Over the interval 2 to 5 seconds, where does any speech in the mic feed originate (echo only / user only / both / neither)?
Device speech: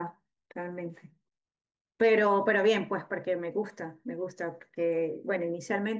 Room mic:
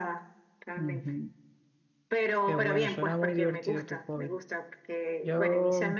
both